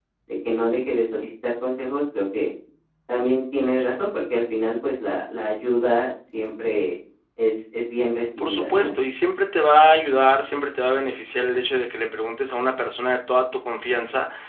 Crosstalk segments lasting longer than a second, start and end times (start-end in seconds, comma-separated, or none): none